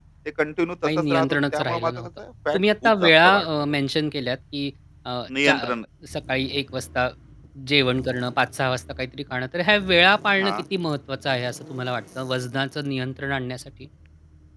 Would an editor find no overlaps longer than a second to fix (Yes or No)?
No